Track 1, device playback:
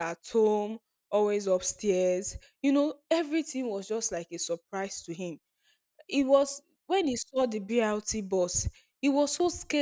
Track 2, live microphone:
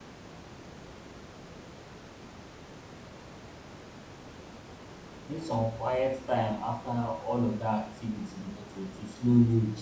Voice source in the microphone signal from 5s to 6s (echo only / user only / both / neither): user only